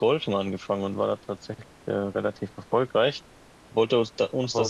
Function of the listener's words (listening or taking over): listening